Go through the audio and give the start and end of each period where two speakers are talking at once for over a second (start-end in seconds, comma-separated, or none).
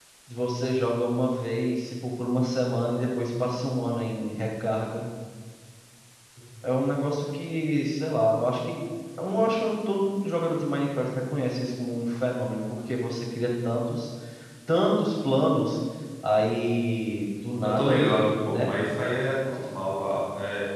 none